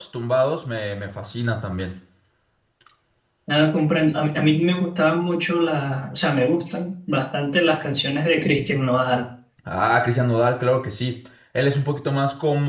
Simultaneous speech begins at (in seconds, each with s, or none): none